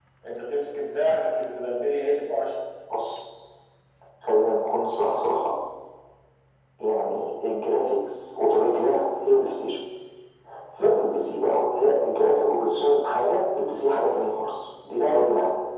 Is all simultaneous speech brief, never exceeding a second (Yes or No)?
Yes